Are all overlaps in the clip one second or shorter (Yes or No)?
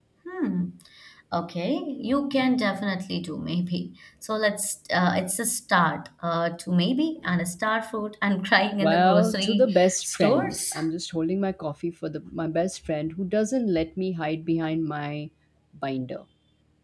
No